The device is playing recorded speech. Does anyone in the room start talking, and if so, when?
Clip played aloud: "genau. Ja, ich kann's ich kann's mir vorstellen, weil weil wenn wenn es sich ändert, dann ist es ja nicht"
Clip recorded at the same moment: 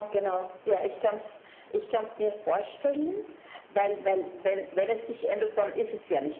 none

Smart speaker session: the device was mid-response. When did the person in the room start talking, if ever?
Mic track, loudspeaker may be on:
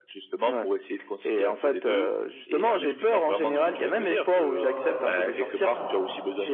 2.7 s

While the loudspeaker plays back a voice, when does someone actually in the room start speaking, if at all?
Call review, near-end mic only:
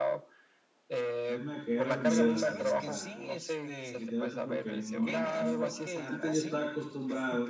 1.3 s

